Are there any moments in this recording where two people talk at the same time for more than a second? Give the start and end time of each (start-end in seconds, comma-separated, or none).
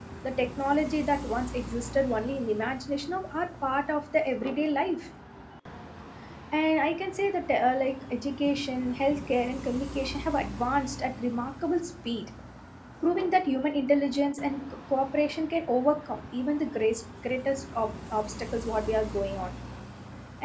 none